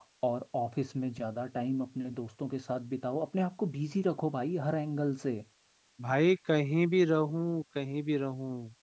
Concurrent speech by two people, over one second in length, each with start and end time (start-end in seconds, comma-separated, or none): none